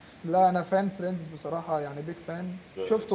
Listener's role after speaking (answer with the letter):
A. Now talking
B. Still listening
B